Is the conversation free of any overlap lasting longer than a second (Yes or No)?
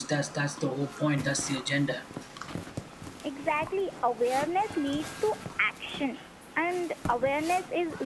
Yes